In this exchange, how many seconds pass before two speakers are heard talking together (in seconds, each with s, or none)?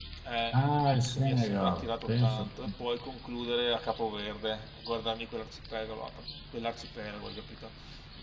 1.1 s